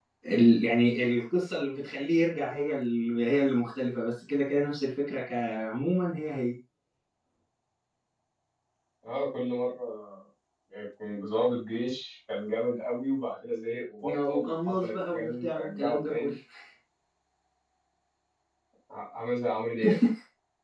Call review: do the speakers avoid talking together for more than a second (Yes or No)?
No